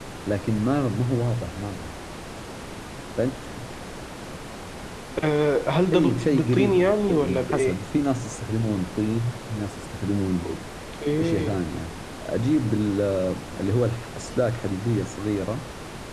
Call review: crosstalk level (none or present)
present